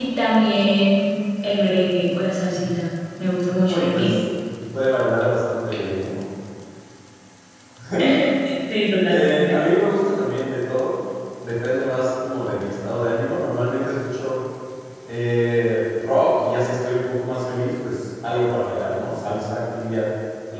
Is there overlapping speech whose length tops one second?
No

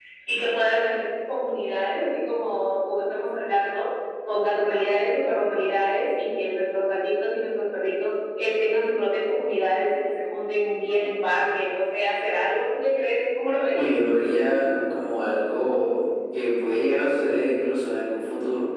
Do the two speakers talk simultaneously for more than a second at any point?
No

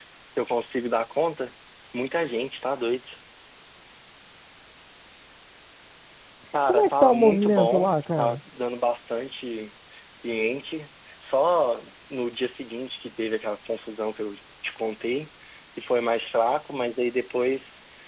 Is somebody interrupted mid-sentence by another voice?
Yes, from 6.7 s

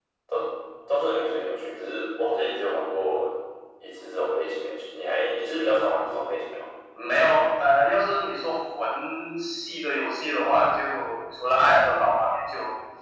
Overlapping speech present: No

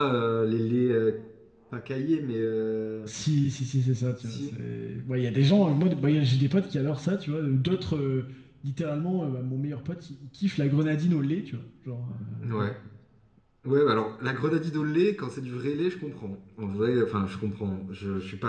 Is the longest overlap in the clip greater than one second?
No

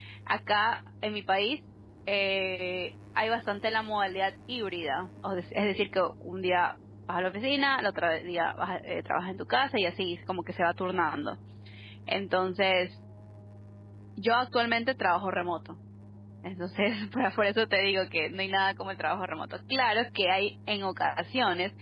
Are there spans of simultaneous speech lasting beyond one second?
No

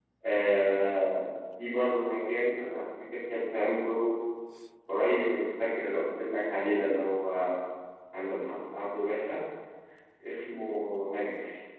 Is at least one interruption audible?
No

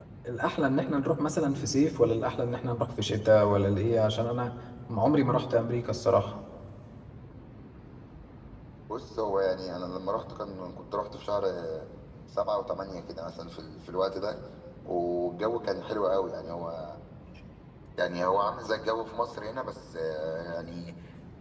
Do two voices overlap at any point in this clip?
No

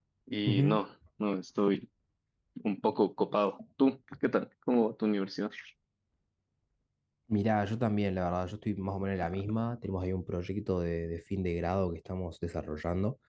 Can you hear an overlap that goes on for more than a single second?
No

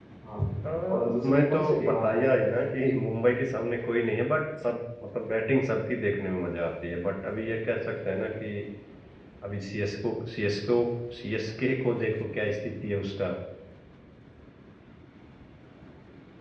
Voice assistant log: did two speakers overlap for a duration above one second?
Yes, from 0.9 s

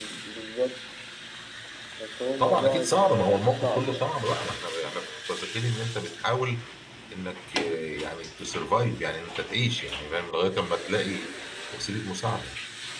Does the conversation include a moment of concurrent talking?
Yes, from 2.4 s

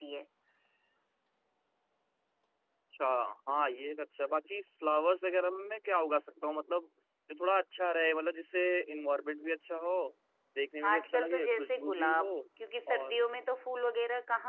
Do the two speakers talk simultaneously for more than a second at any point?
Yes, from 10.8 s

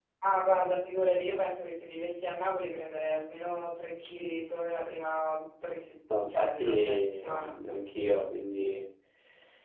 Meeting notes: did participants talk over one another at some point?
Yes, from 6.1 s

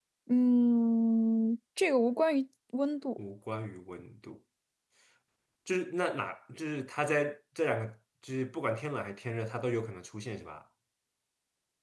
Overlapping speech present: No

